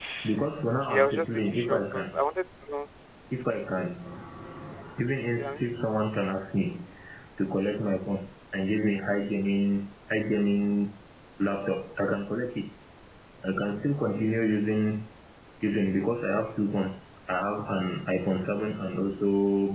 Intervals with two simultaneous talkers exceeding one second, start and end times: 0.8-2.2

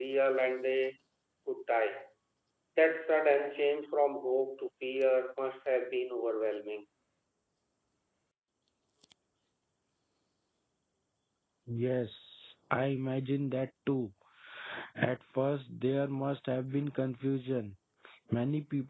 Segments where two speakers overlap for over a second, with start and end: none

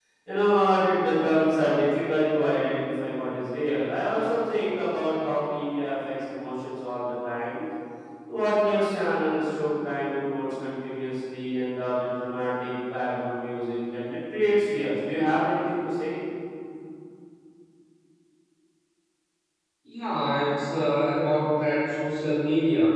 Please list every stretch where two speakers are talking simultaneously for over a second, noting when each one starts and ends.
none

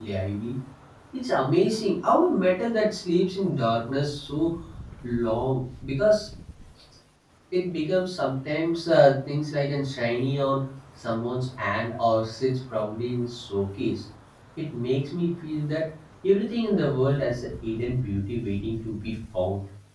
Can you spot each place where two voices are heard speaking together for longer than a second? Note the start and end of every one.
none

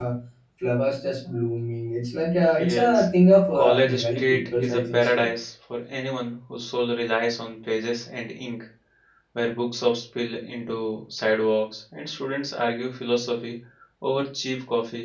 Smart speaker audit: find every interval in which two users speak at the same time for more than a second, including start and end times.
3.5-5.3

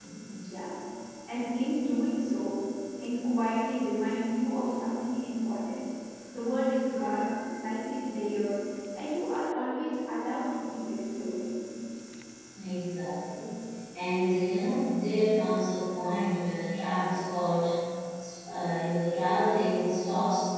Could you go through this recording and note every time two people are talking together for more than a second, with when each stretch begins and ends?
none

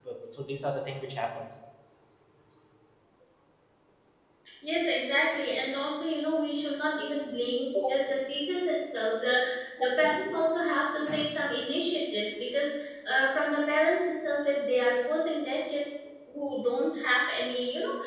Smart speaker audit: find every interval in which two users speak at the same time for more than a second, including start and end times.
none

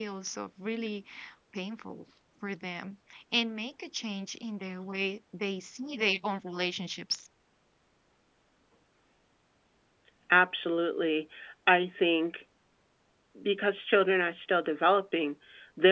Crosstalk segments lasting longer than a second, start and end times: none

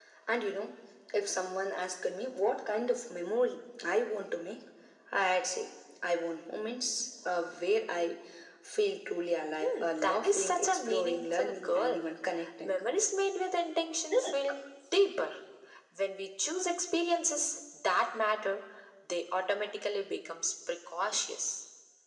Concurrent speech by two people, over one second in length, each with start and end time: 9.6-12.1

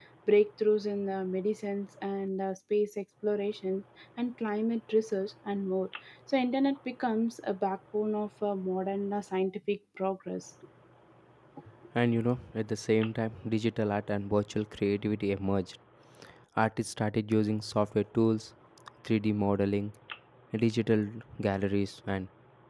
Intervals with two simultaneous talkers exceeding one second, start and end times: none

